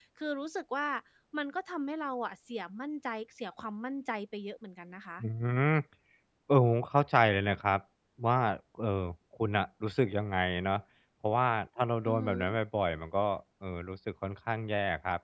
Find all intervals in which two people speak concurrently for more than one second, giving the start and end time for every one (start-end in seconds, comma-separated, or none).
none